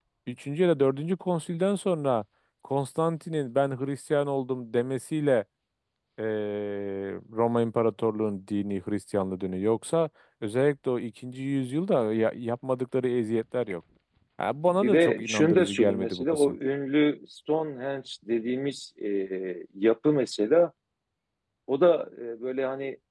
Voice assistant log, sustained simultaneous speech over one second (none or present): present